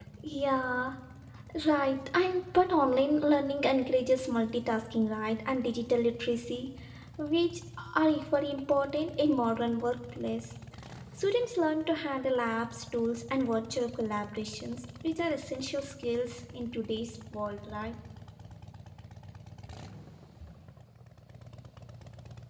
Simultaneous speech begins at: none

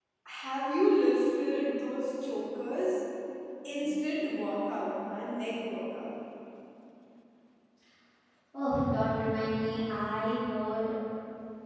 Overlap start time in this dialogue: none

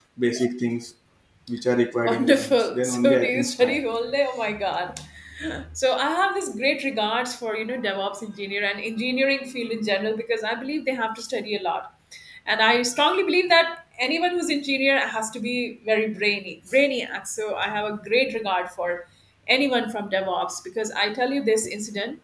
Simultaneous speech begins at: 2.0 s

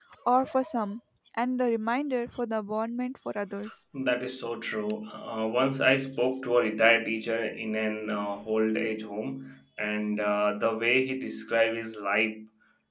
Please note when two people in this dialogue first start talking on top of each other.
none

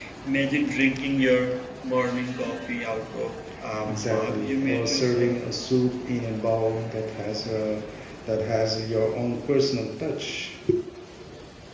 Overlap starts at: 3.9 s

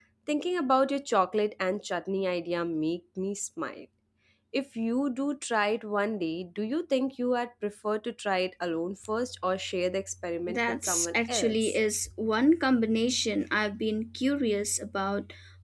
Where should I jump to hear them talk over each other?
10.5 s

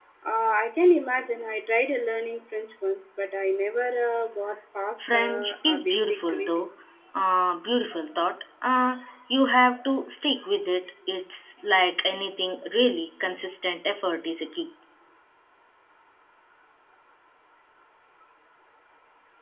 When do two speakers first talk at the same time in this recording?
5.0 s

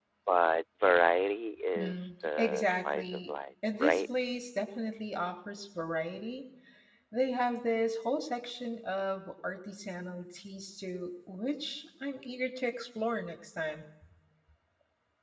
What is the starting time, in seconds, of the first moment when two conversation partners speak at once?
1.8 s

